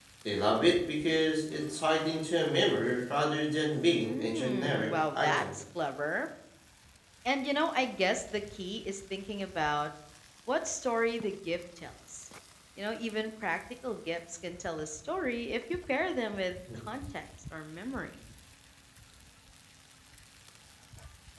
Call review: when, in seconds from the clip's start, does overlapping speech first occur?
4.0 s

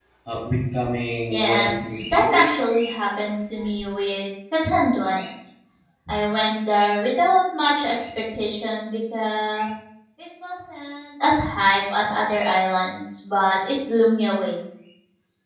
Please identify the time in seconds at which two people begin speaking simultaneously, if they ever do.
1.3 s

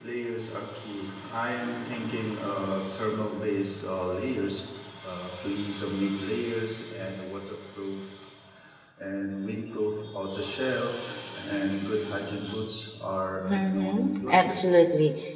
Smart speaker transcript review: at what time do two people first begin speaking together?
13.4 s

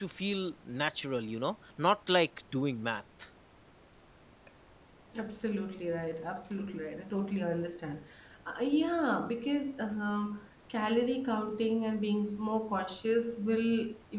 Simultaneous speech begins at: none

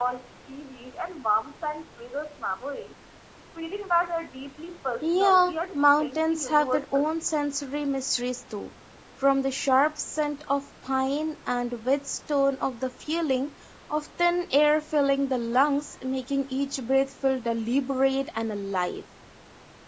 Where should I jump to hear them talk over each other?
5.0 s

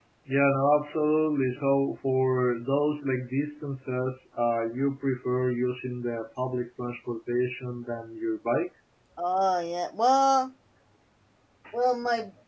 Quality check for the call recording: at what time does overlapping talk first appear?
none

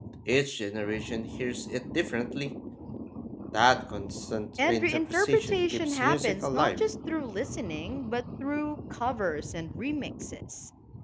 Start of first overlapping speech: 4.6 s

